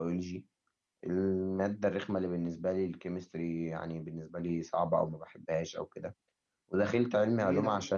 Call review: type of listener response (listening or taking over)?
listening